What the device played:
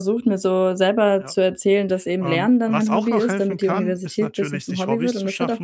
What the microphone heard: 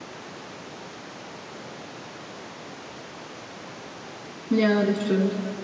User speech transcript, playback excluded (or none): Ja, das stimmt.